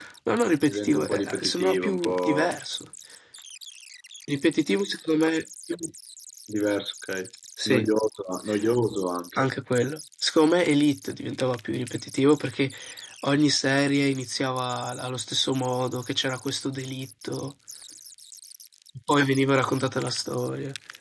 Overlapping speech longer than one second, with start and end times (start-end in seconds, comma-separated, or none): 0.7-2.5